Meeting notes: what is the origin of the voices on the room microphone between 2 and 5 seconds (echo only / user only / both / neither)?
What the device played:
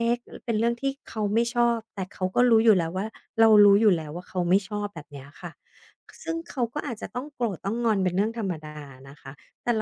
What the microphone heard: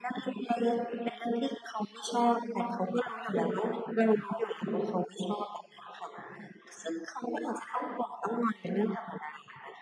echo only